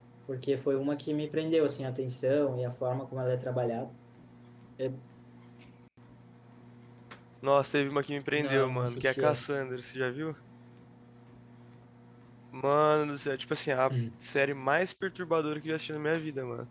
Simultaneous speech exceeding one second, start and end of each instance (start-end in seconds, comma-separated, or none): 8.3-9.5